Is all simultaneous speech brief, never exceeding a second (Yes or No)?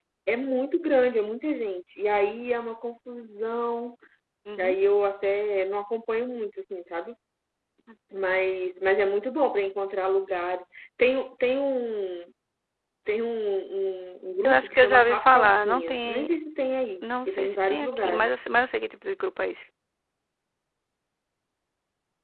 No